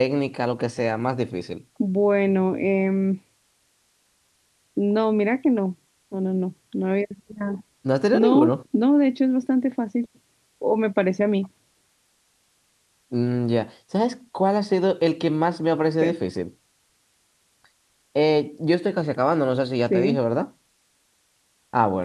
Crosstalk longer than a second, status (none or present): none